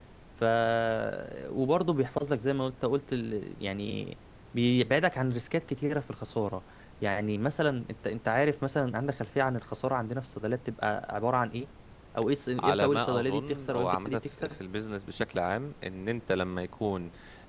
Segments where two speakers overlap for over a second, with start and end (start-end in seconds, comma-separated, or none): 12.6-14.6